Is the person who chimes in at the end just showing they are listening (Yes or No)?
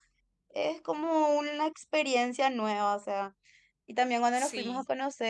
Yes